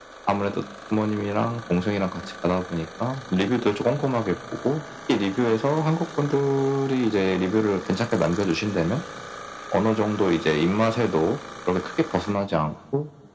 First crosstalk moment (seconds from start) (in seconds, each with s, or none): none